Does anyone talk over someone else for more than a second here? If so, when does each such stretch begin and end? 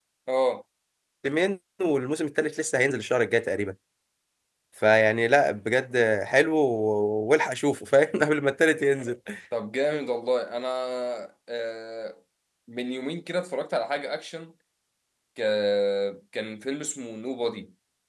none

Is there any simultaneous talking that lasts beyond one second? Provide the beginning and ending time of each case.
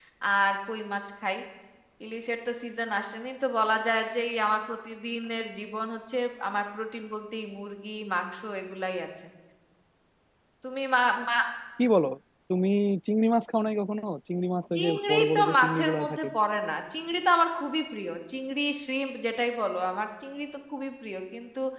14.8-16.3

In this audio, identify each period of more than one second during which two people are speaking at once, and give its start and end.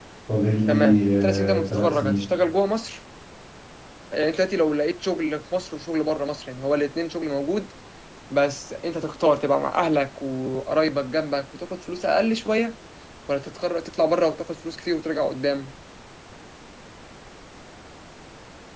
0.7-2.2

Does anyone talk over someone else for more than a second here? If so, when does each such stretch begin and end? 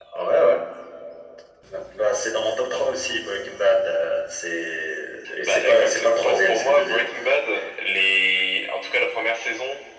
5.4-7.1

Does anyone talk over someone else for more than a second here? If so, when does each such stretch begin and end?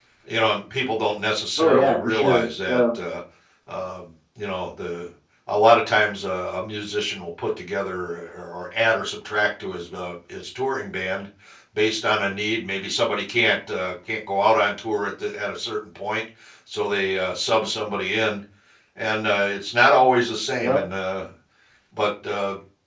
1.6-2.8

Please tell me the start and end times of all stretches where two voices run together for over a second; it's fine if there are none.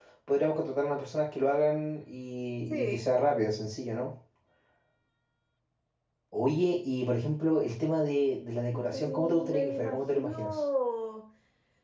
8.7-10.6

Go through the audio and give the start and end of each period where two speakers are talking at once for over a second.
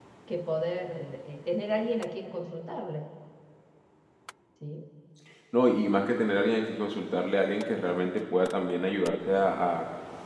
none

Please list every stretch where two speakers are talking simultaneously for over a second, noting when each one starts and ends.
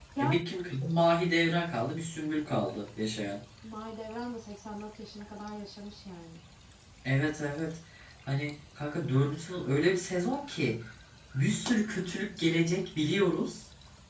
none

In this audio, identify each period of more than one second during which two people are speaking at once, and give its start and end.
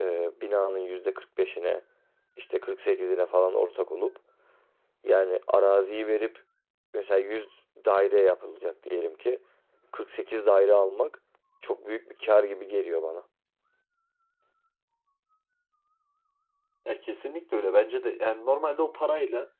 none

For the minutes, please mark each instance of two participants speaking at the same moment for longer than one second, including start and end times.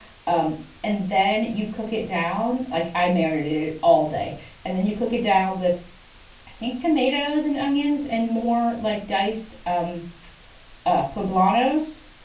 none

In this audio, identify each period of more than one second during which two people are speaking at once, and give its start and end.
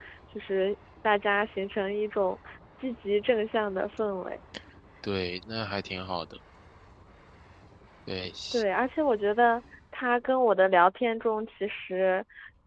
none

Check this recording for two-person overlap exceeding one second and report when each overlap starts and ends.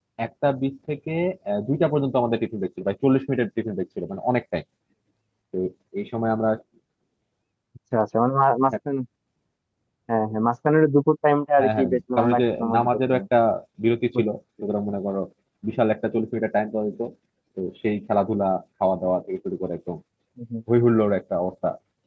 11.6-13.2

